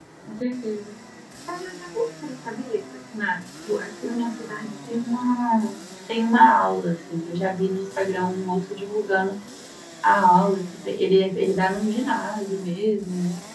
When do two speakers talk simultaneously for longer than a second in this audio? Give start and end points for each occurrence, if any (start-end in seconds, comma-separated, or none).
none